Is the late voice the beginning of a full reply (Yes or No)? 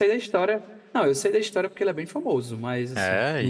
Yes